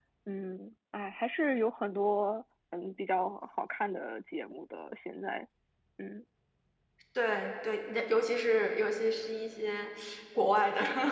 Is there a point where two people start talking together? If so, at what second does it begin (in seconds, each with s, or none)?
none